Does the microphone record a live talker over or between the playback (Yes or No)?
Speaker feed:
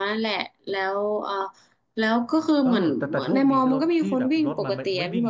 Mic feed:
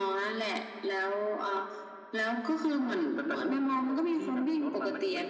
No